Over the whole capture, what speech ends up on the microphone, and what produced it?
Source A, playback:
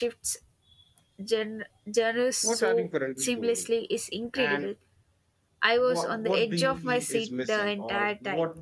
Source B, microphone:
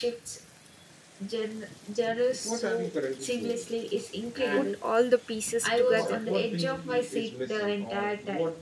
both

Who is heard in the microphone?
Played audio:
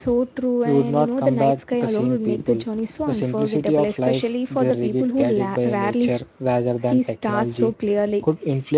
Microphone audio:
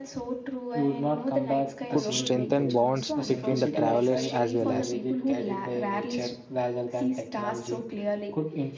both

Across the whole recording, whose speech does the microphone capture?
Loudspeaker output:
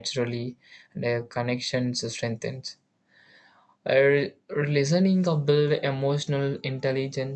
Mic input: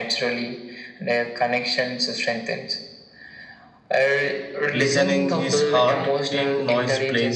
both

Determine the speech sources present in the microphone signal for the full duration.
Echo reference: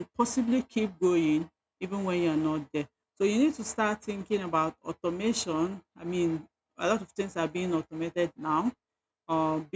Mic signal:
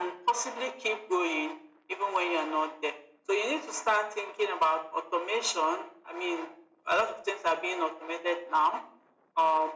echo only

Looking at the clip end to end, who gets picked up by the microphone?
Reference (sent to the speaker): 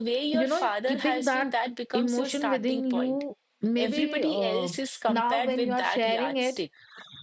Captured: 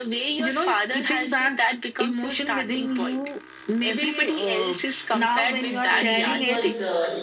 both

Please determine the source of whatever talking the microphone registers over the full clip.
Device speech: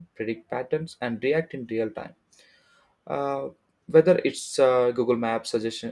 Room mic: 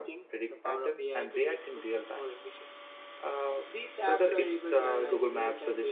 both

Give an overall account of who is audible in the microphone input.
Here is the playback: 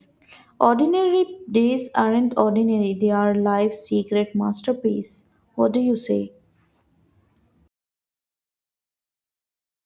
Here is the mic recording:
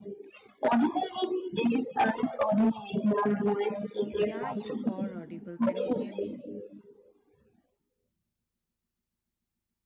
both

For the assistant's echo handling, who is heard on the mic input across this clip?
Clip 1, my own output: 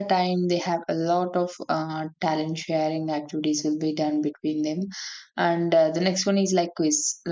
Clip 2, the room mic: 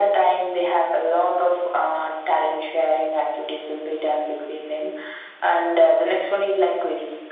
echo only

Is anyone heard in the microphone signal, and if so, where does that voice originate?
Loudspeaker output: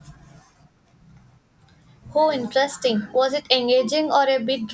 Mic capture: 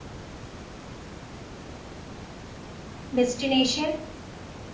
user only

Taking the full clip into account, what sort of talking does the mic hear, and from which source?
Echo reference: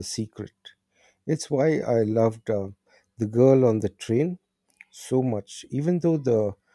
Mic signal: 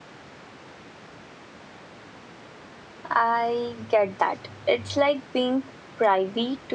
user only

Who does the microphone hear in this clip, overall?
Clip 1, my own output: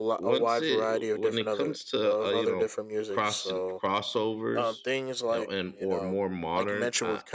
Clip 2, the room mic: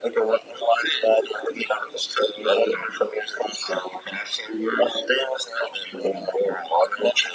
echo only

